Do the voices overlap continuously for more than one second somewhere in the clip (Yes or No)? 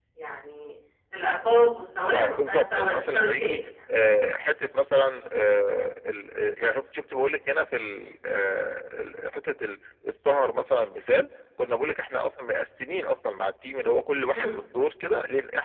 Yes